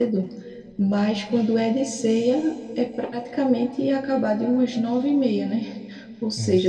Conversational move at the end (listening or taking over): listening